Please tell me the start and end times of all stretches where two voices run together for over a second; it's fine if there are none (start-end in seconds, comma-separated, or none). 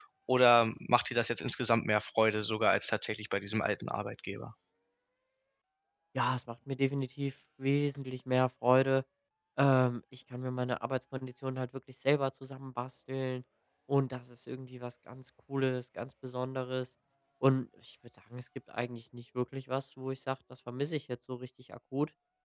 none